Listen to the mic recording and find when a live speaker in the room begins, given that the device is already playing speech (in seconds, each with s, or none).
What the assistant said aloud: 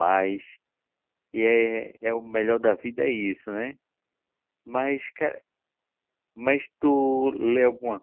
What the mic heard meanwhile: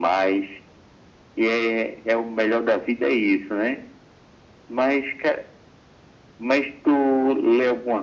none